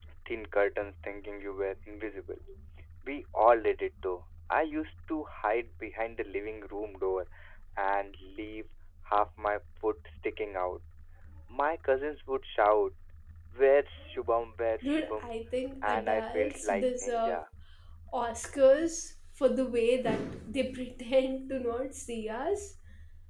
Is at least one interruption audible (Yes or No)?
Yes